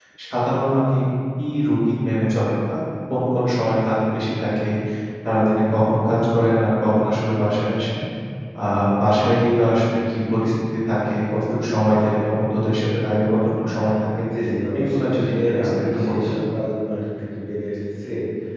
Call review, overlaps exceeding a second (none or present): present